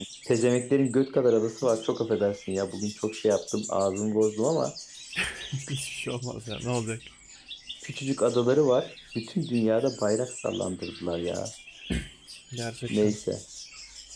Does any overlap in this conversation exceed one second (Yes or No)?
No